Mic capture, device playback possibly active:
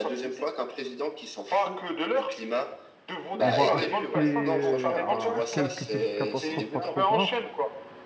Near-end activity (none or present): present